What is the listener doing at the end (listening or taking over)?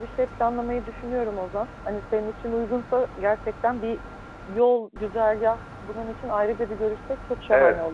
taking over